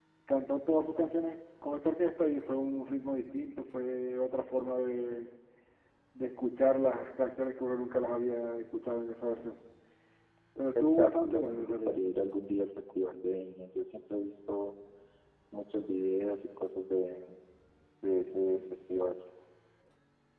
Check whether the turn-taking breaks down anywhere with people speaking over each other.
Yes, from 10.8 s

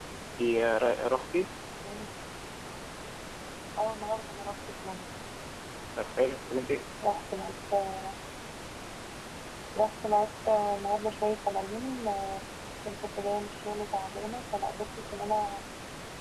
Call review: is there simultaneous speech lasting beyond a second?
No

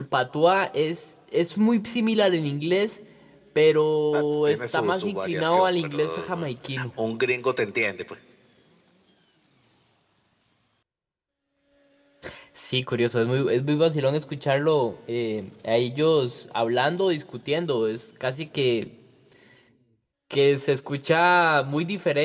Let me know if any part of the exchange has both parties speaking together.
Yes, from 4.1 s

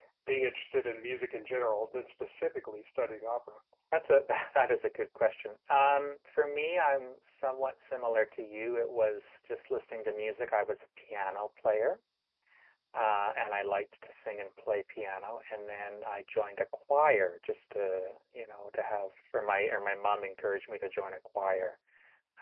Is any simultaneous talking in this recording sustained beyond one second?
No

